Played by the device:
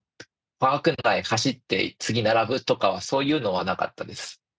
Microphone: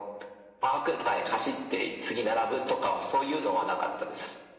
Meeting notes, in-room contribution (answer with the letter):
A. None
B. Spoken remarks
A